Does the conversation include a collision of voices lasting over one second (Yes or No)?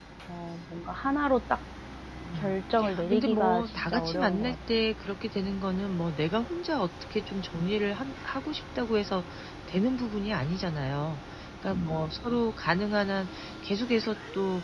Yes